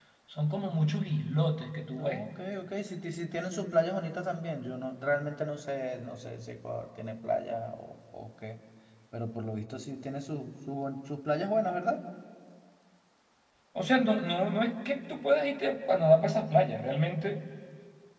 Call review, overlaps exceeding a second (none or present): none